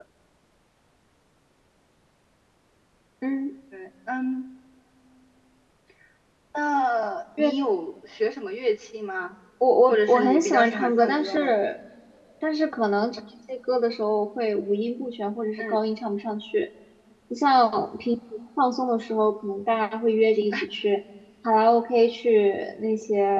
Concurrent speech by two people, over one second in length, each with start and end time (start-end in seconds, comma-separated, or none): 9.9-11.5